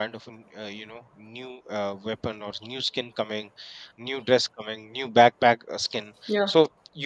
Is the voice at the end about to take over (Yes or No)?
No